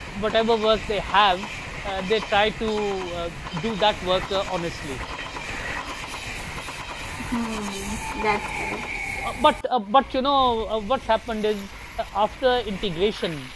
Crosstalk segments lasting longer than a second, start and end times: none

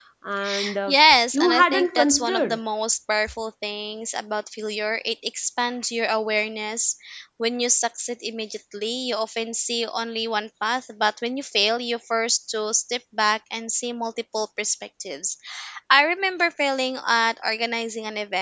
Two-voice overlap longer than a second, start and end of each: 1.3-2.6

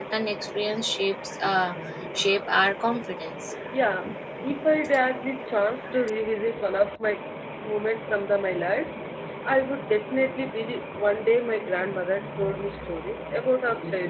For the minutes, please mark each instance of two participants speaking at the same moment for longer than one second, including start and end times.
none

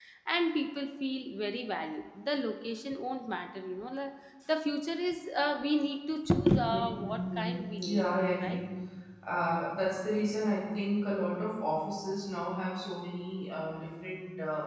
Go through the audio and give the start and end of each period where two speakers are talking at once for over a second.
6.7-8.0

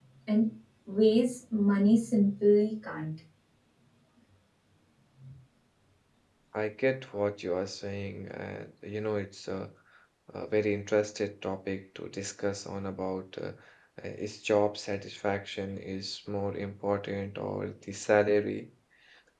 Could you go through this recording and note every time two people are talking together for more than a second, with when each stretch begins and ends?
none

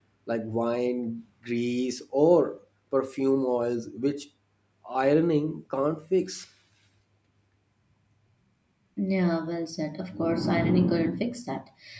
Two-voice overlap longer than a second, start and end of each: none

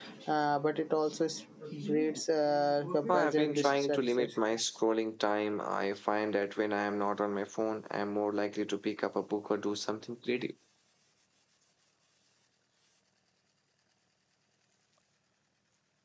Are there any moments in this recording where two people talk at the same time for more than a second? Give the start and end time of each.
3.1-4.3

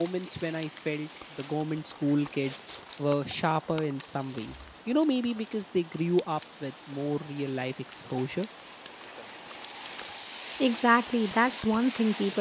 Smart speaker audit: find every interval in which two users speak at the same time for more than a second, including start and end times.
none

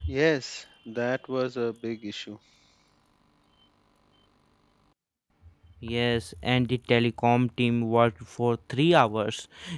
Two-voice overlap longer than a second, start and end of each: none

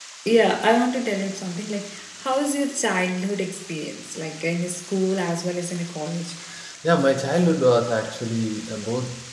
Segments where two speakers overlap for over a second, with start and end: none

